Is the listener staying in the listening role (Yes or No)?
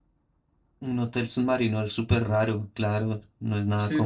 No